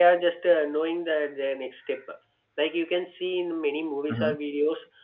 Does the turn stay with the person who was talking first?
Yes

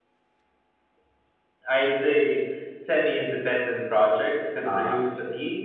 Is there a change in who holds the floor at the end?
No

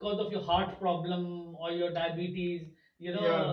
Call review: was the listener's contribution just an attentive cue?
Yes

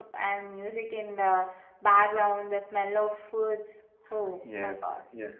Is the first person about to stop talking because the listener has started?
Yes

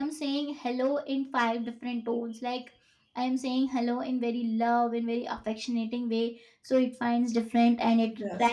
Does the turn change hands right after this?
No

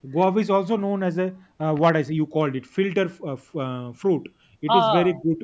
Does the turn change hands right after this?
No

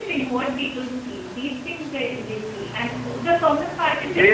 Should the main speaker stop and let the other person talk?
Yes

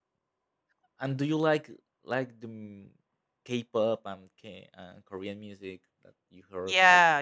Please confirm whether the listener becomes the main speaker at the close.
Yes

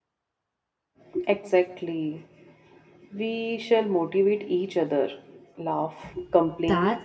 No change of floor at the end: No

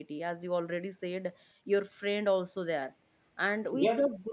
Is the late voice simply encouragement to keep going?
Yes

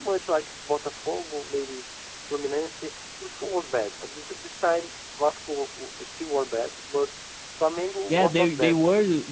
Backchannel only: No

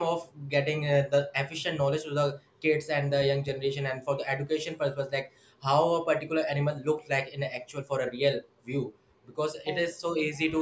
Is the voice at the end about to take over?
No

